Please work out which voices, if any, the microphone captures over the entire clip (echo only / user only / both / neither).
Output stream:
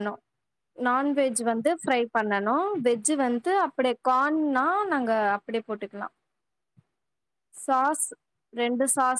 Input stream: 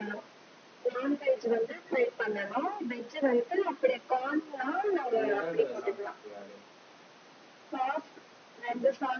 both